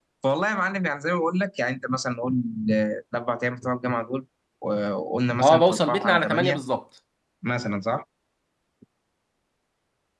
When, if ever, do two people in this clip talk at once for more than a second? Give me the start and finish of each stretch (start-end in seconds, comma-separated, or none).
5.4-6.6